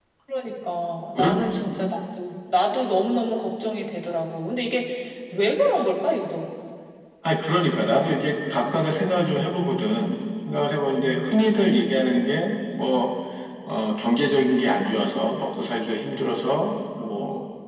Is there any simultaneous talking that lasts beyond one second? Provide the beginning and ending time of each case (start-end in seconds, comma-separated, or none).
none